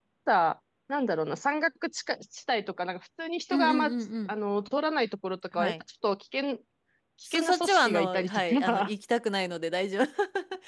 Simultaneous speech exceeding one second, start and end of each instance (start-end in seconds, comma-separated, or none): 7.2-8.9